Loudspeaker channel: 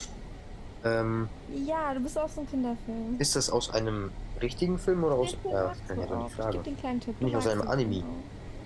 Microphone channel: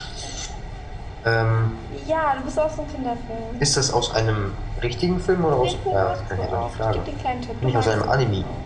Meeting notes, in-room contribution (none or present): none